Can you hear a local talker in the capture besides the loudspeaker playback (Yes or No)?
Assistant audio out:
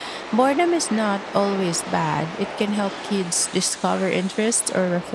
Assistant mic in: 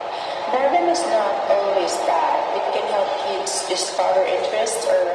No